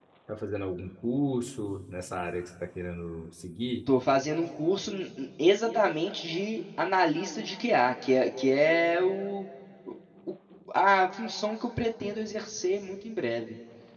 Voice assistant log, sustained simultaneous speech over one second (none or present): none